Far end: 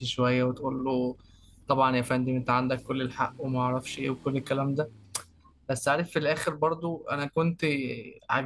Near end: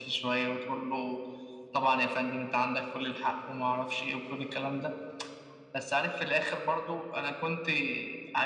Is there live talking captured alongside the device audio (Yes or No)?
No